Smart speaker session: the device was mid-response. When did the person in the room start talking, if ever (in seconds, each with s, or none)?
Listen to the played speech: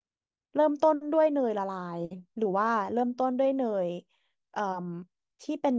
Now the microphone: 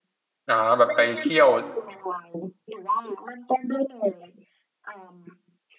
0.5 s